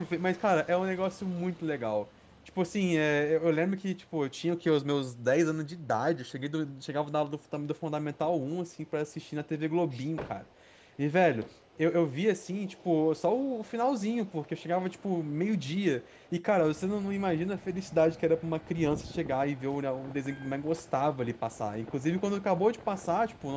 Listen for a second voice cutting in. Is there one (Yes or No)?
No